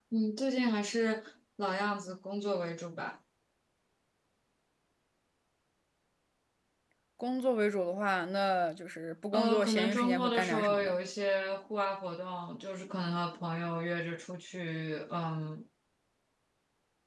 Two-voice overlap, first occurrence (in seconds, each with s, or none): 9.3 s